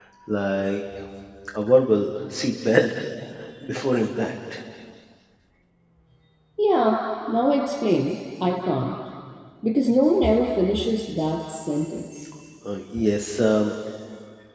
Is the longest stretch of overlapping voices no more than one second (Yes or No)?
Yes